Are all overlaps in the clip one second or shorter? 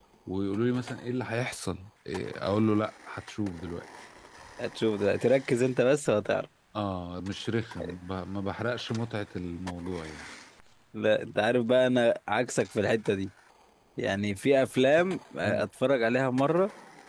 Yes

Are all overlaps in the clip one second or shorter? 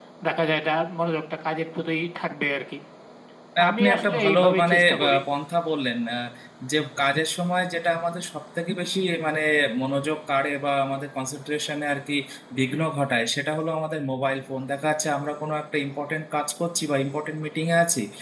No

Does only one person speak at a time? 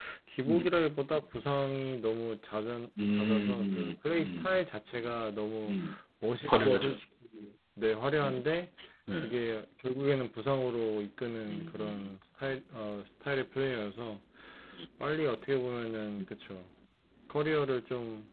No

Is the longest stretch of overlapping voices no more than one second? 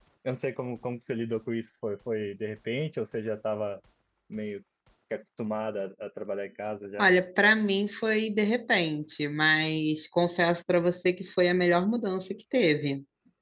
Yes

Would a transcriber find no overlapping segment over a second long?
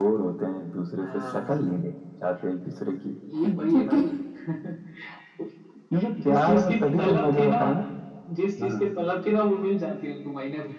No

